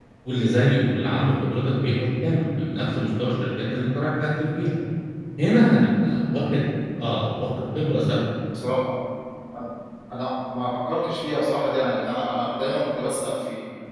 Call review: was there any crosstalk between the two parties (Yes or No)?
No